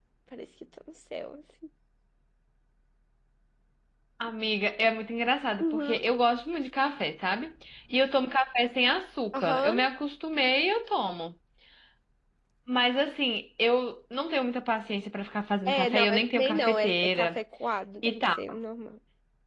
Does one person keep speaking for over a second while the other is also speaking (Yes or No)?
Yes